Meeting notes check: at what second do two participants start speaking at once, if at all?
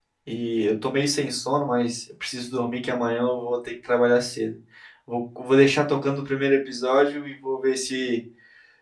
none

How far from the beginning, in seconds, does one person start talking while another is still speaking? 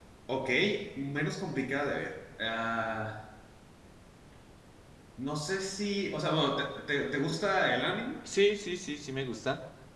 none

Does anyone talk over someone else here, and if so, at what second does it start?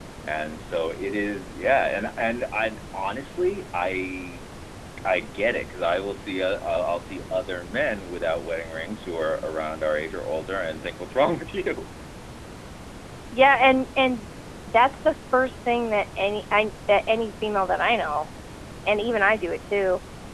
none

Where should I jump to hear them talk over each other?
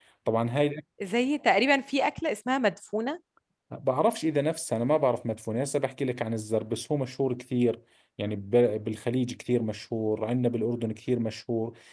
none

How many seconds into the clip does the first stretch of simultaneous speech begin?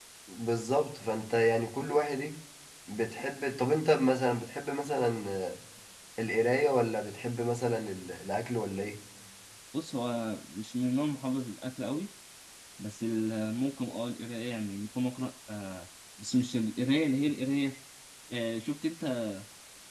none

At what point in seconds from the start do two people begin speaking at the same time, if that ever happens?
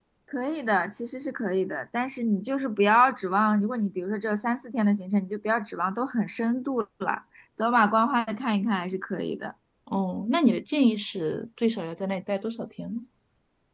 none

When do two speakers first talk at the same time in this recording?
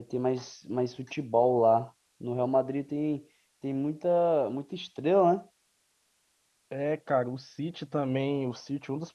none

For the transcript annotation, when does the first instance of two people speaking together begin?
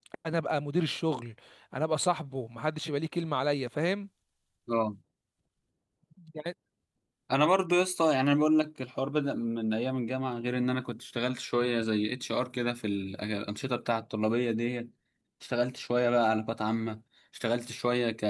none

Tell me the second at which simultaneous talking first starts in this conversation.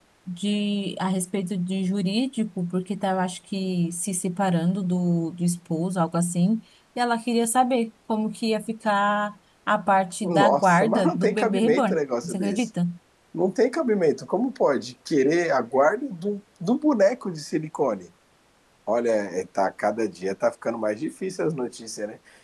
10.2 s

